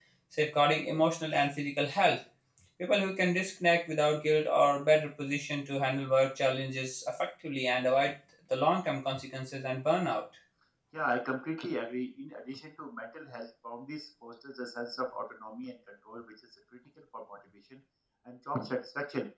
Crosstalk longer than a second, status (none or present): none